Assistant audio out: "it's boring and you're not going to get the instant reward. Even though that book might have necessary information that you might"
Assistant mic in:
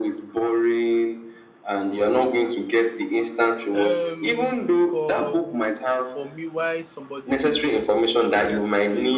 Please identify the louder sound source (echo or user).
echo